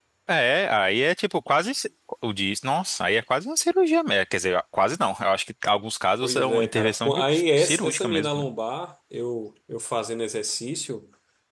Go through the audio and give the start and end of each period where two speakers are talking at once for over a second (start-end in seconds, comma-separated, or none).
6.2-8.5